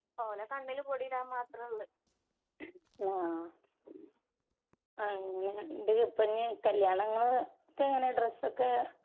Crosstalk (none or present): none